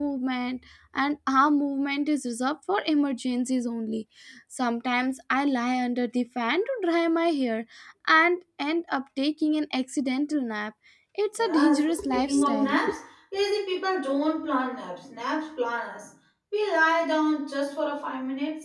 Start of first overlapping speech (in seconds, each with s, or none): 11.4 s